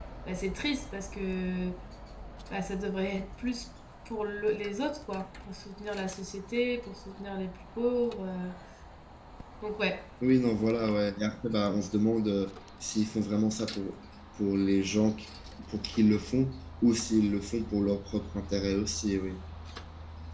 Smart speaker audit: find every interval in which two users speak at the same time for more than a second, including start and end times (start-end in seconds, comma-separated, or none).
none